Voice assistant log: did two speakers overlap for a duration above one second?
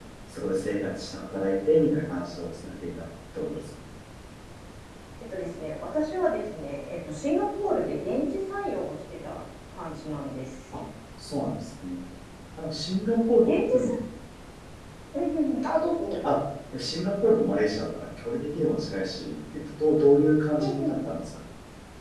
No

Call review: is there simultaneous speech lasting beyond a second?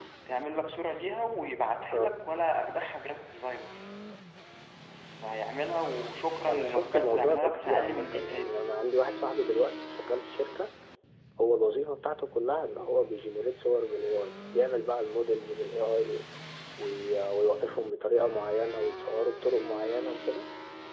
Yes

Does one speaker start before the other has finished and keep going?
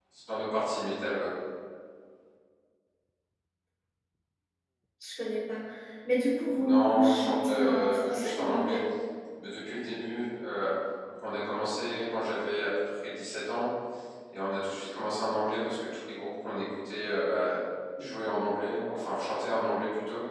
Yes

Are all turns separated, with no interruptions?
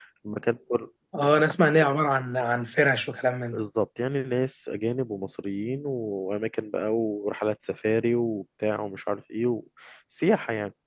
Yes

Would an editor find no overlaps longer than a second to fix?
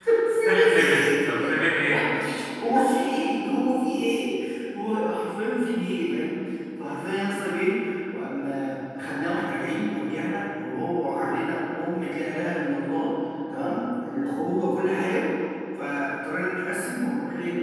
No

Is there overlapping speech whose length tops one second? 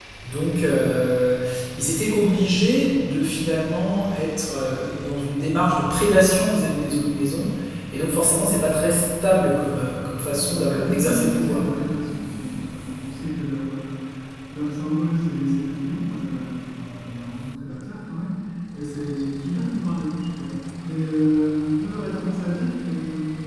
Yes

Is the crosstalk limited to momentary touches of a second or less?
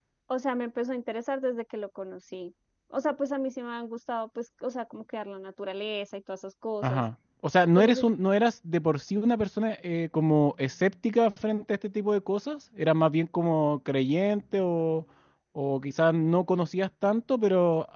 Yes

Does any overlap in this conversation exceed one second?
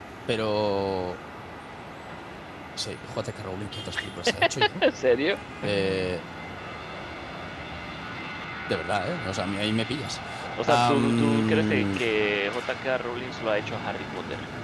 Yes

